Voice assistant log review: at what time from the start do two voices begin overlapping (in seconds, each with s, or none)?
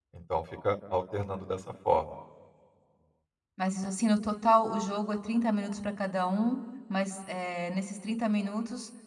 none